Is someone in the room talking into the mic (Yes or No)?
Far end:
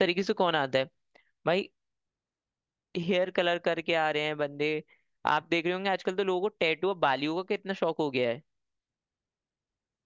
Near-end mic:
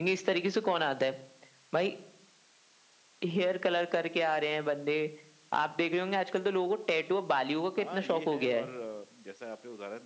Yes